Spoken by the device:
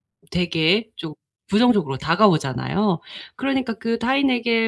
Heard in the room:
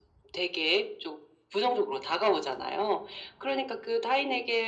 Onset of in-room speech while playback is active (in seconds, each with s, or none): none